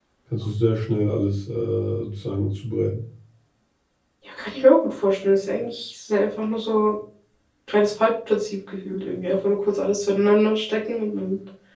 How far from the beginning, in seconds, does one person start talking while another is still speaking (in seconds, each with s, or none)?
none